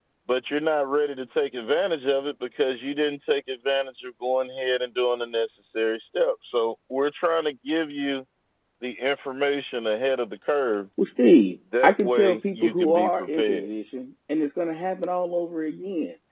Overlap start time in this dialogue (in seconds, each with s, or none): 11.8 s